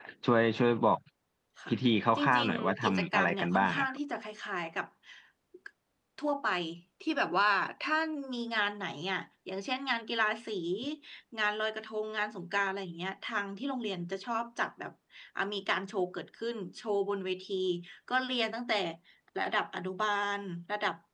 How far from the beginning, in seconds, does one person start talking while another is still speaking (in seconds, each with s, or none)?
2.2 s